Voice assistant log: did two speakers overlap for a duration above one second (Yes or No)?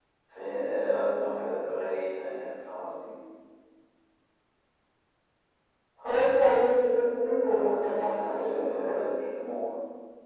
Yes